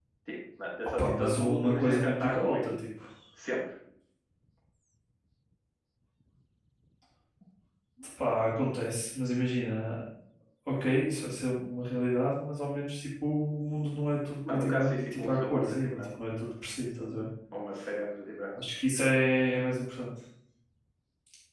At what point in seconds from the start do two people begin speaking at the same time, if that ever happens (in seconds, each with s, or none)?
1.0 s